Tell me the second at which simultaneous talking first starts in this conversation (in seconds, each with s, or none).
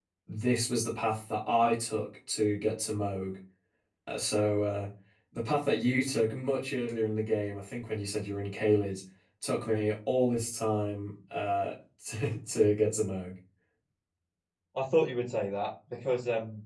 none